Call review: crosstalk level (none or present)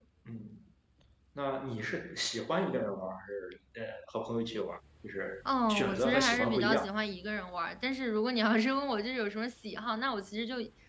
present